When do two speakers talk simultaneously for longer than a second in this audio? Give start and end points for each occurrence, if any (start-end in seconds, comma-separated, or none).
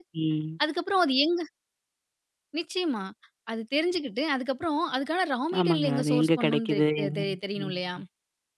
5.6-7.7